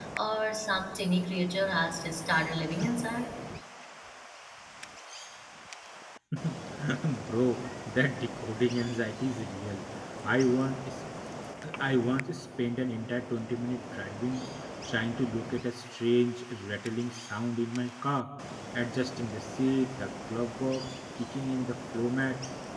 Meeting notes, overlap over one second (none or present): none